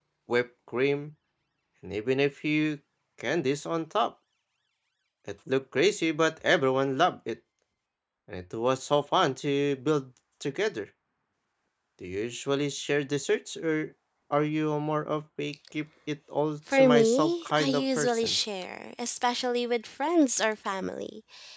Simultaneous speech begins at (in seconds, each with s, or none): 16.7 s